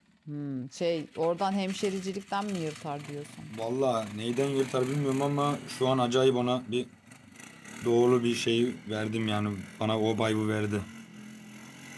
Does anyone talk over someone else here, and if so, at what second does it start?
none

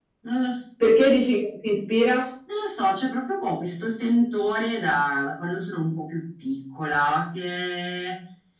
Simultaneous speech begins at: none

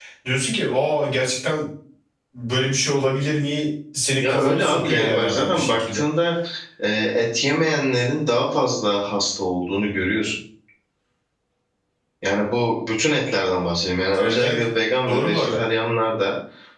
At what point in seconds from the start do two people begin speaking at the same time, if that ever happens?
4 s

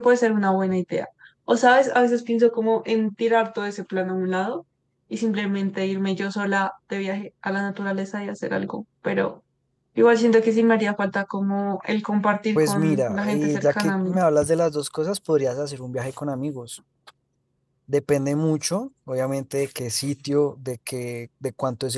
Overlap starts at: 13 s

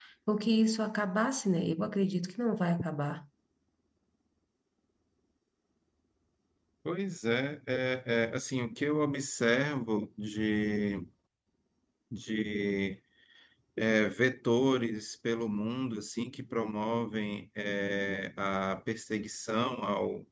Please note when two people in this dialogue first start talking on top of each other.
none

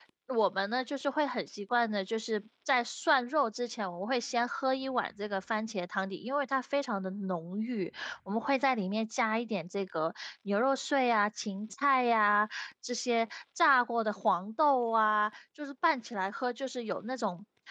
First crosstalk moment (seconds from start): none

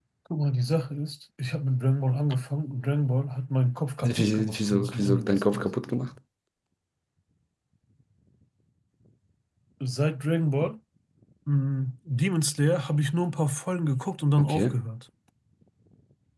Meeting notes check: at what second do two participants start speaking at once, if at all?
4 s

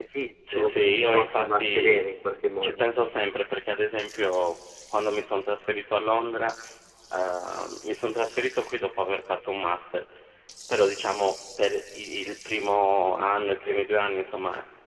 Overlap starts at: 1 s

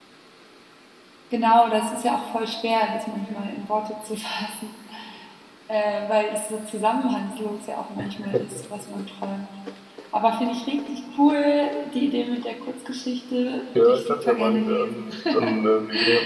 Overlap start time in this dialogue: 14 s

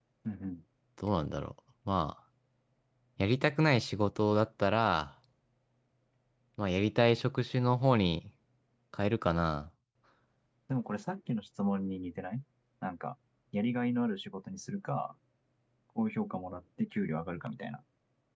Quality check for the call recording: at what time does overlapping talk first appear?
none

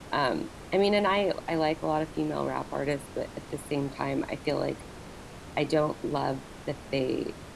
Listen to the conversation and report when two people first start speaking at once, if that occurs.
none

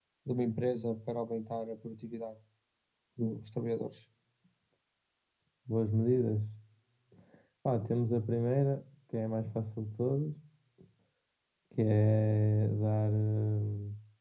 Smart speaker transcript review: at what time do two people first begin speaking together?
none

